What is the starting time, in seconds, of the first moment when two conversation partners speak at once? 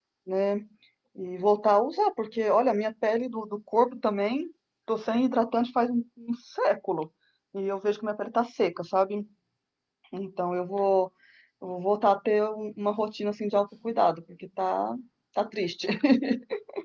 none

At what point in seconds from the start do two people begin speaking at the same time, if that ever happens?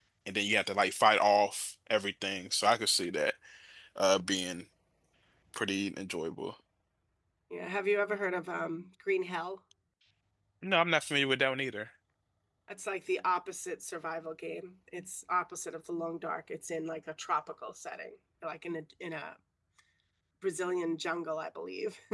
none

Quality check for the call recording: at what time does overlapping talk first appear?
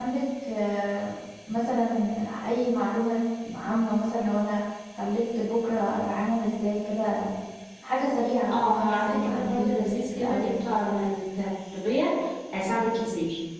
8.5 s

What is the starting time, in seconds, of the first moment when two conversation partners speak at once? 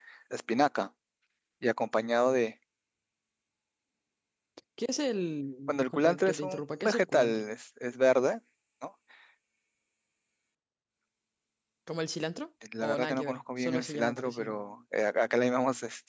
5.7 s

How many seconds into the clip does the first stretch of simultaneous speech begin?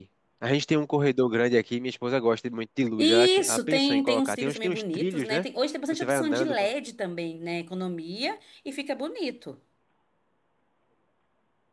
3.0 s

